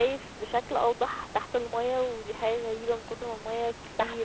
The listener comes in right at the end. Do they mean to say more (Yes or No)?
No